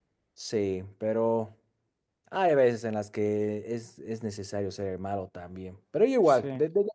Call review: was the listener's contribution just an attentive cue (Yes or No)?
Yes